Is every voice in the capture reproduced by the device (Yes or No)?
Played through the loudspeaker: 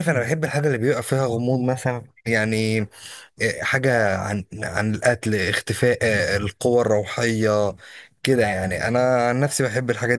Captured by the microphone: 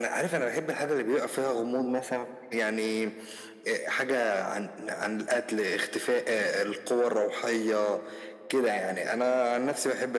Yes